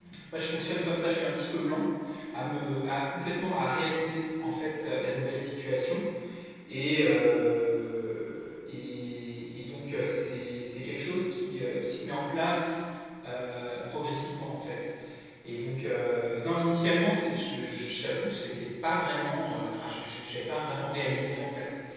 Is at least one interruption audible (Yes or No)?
No